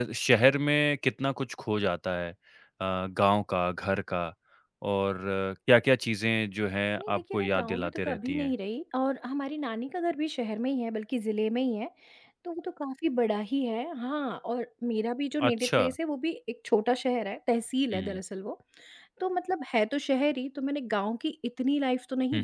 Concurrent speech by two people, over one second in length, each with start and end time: 7.0-8.5

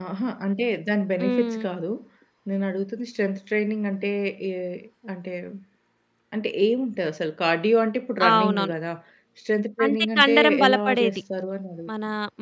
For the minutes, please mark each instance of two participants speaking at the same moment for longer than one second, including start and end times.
9.8-11.2

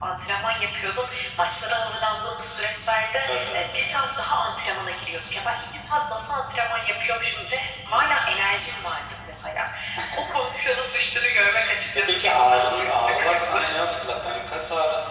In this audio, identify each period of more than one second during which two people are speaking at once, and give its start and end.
11.9-13.6

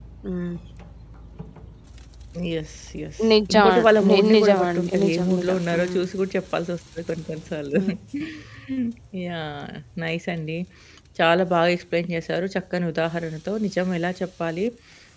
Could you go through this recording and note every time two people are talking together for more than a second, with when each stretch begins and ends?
3.3-6.0

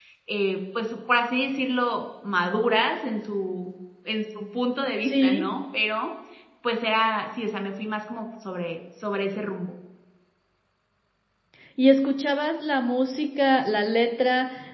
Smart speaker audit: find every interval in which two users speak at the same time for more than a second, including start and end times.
none

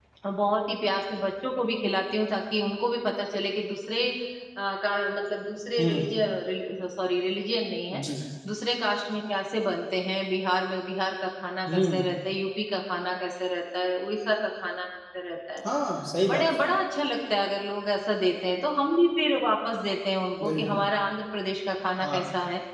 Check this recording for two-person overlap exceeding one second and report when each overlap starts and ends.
none

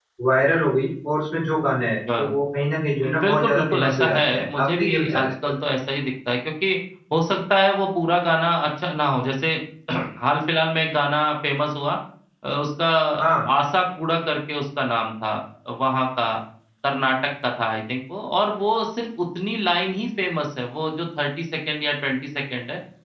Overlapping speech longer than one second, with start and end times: 3.0-5.3

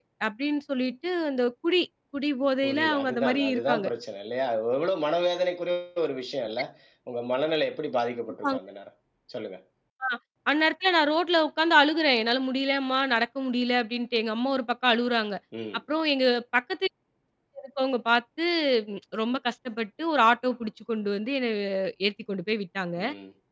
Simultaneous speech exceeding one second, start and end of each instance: 2.6-3.9

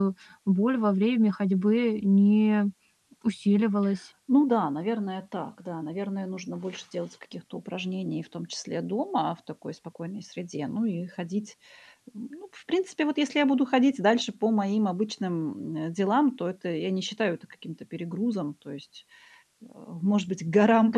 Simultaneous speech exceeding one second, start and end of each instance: none

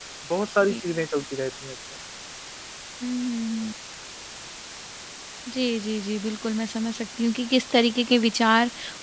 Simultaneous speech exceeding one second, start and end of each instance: none

